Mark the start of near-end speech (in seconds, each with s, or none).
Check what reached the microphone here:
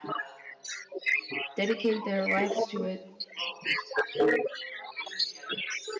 1.5 s